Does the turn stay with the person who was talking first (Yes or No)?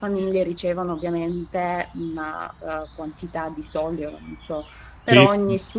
Yes